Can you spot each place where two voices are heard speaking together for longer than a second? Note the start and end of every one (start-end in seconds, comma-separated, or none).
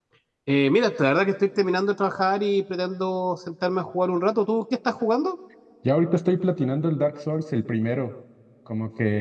none